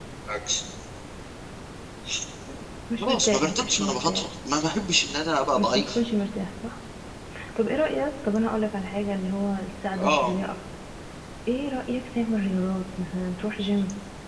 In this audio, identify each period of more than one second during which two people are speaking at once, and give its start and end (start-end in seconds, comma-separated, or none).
3.0-4.3